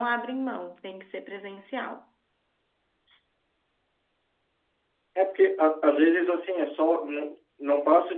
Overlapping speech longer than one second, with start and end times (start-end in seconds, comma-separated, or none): none